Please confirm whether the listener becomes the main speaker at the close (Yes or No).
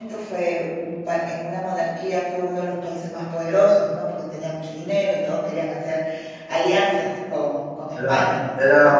Yes